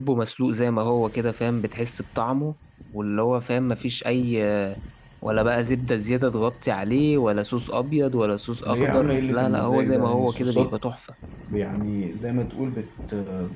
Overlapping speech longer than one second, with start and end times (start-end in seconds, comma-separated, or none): 8.7-10.8